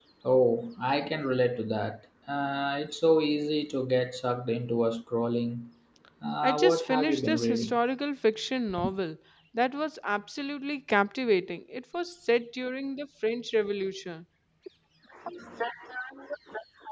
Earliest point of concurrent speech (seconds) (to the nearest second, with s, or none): 6 s